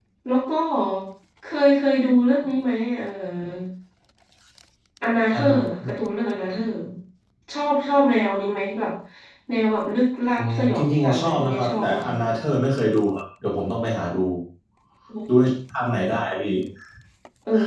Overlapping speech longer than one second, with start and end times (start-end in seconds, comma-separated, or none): 10.3-12.1